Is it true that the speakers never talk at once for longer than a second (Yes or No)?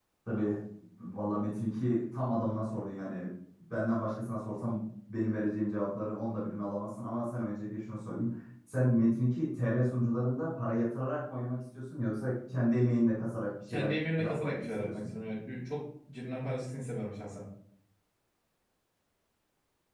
No